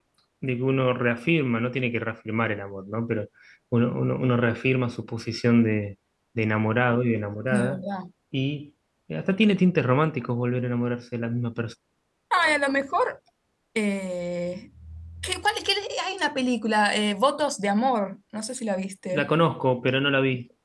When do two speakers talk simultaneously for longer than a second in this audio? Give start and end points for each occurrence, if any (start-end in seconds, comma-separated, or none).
none